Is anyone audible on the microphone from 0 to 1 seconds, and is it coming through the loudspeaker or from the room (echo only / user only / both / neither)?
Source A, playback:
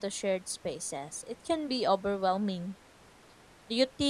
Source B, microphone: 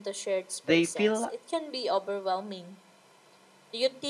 both